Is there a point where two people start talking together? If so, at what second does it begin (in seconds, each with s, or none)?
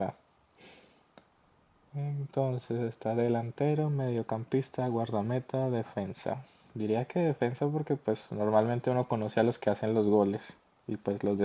none